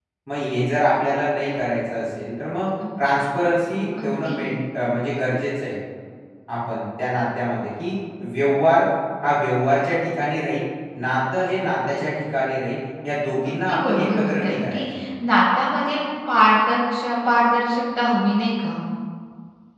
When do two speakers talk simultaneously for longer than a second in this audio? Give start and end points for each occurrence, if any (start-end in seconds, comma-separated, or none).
13.4-14.8